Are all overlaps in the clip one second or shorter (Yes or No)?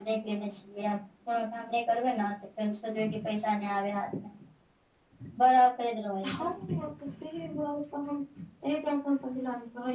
Yes